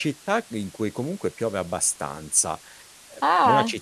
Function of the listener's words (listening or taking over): listening